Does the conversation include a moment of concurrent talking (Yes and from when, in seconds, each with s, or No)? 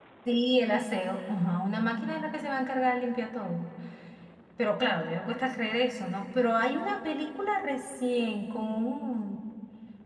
No